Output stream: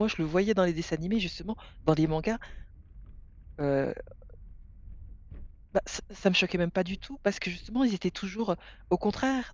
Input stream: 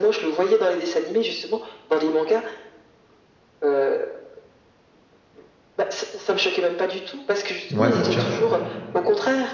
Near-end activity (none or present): present